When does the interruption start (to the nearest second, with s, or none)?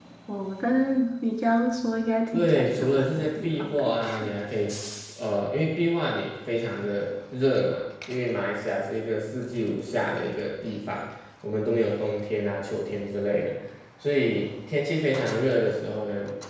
2 s